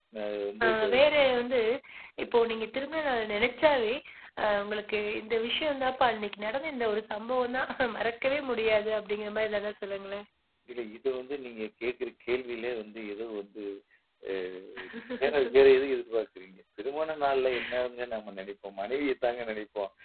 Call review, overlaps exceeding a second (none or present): none